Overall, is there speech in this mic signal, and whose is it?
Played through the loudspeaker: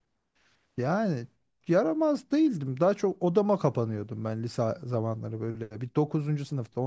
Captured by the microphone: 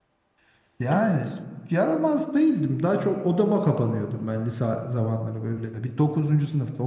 both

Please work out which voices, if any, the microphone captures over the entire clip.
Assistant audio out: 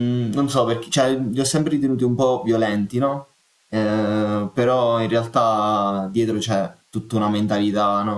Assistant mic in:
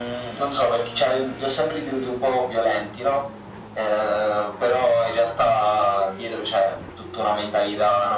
echo only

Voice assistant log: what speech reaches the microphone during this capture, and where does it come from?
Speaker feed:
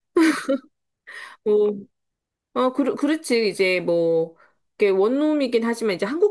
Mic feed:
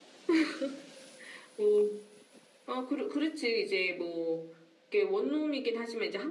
echo only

